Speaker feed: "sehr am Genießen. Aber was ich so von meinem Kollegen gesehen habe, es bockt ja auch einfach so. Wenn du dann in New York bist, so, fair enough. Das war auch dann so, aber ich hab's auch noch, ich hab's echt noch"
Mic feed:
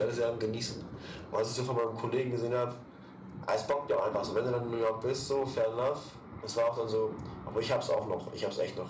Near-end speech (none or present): none